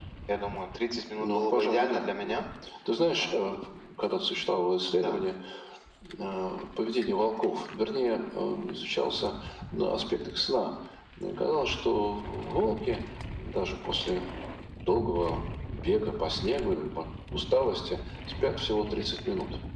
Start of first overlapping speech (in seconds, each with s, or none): 1.2 s